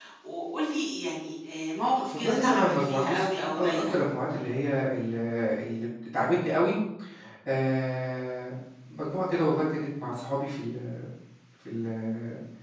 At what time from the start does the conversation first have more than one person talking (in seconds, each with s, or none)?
2.1 s